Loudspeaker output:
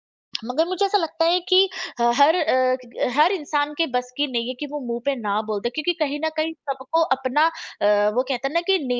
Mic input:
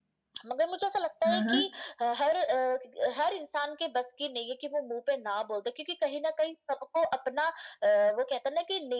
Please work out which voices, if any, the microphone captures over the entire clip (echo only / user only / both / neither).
both